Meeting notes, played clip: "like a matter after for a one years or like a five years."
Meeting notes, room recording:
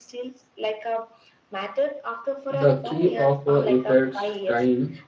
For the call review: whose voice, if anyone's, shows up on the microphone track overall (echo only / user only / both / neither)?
both